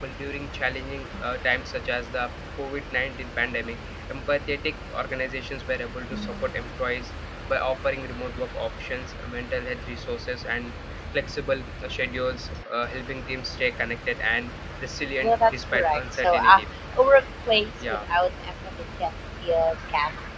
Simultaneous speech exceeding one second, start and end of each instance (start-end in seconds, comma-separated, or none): 15.2-16.6